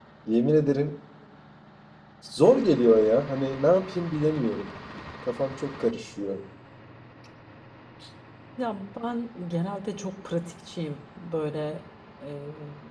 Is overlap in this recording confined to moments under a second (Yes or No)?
Yes